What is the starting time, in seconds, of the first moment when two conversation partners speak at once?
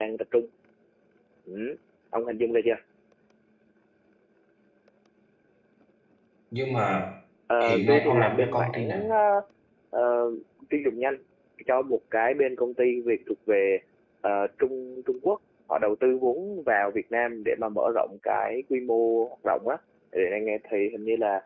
7.7 s

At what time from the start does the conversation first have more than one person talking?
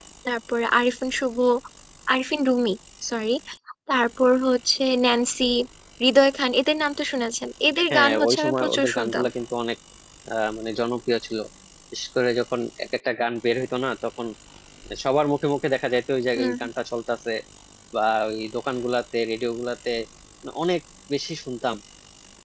7.9 s

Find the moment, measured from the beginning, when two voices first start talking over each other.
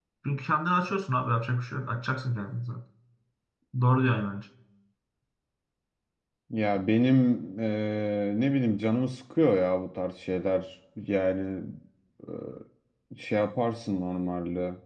none

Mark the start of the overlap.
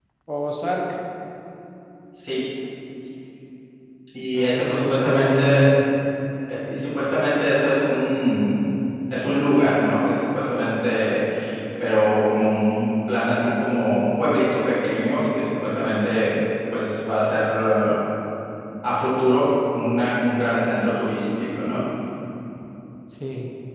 4.3 s

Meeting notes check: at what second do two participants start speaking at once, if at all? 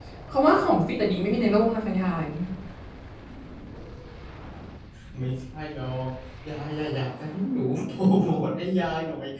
none

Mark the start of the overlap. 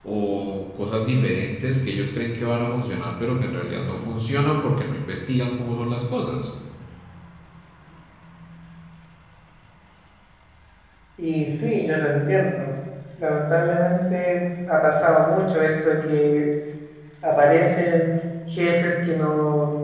none

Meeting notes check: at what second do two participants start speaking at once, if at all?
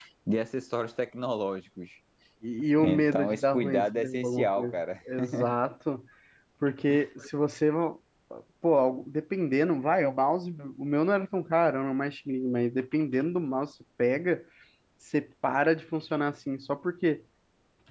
2.8 s

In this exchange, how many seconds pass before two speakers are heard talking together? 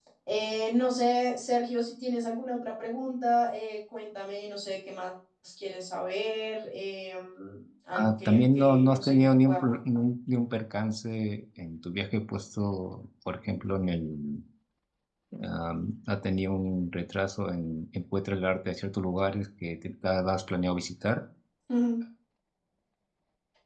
7.9 s

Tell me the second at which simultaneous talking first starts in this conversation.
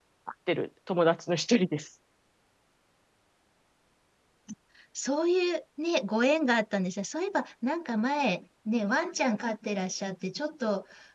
none

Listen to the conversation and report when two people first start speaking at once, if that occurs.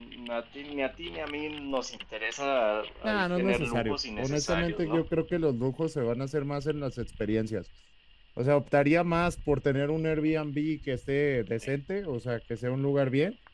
3.1 s

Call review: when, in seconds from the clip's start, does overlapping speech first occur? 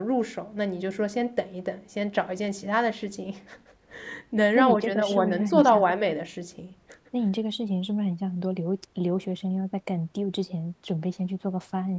4.6 s

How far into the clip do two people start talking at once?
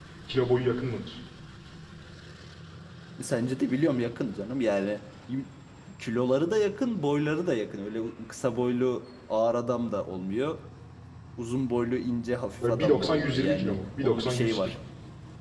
12.6 s

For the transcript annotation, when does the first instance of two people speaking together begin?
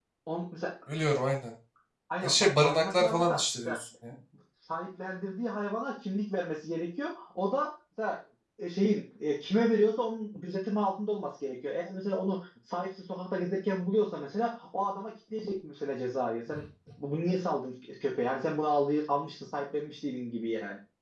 2.2 s

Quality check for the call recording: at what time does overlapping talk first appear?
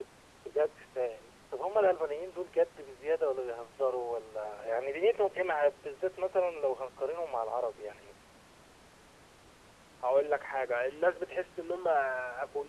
none

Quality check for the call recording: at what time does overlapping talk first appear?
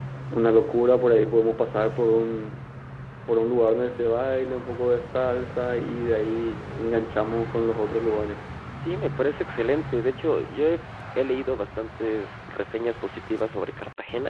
none

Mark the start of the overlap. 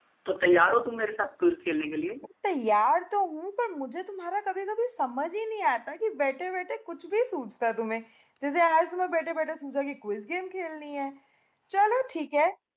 none

